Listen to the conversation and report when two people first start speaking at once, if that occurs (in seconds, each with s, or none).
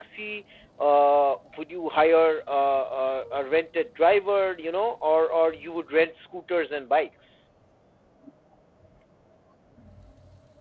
none